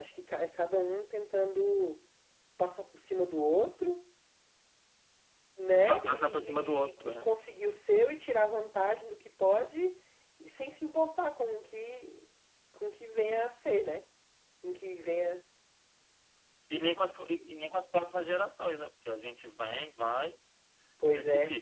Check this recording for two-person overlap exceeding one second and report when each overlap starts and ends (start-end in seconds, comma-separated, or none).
5.9-7.3